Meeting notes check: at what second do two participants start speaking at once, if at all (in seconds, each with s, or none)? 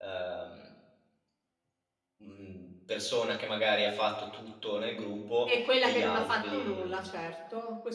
5.5 s